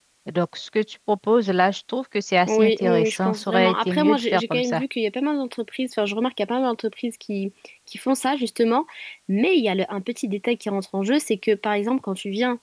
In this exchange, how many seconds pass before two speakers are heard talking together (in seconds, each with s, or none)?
2.5 s